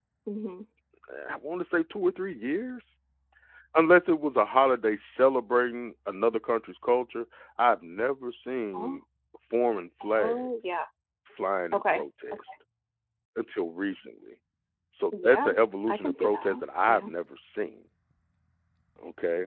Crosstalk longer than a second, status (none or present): present